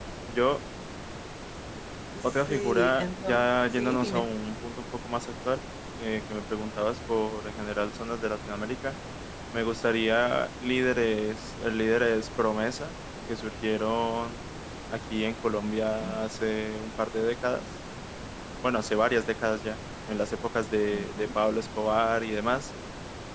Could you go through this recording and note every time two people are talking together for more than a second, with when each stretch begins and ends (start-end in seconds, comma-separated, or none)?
2.2-4.3